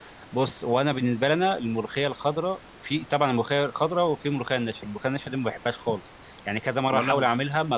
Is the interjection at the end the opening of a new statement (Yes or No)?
No